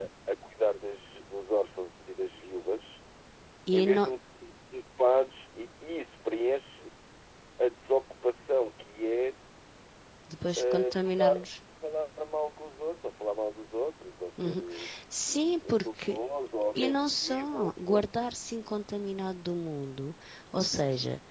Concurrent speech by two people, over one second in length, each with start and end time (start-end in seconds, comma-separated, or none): 16.8-18.0